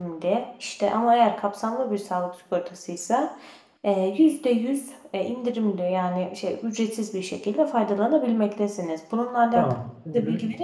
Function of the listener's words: taking over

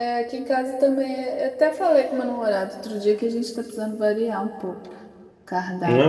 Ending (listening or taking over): taking over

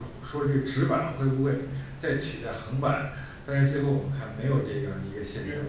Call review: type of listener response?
taking over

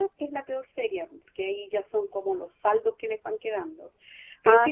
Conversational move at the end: listening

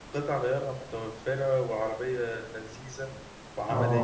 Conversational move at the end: taking over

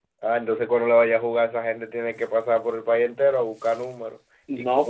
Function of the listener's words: taking over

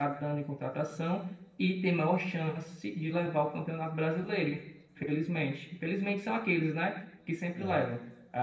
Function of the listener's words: listening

